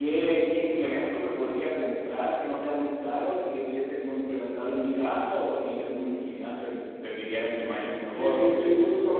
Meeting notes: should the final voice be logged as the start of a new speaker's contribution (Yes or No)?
Yes